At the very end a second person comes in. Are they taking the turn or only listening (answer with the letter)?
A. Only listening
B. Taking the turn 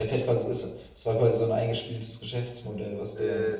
B